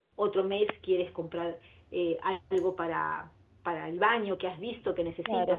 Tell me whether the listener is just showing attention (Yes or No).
No